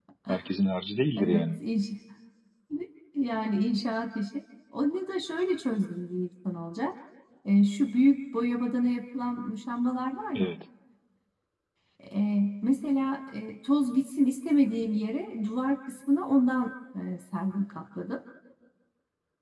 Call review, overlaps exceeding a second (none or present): none